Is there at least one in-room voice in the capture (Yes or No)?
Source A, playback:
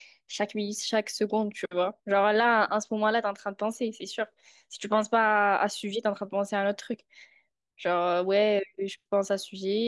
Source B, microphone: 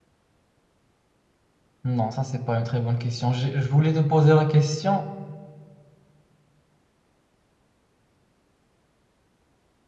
Yes